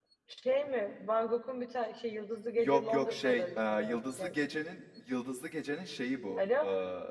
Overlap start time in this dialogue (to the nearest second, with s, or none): 3 s